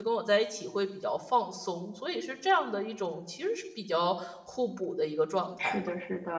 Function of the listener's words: taking over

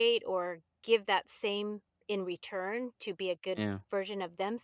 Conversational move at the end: listening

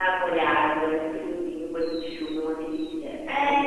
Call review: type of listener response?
taking over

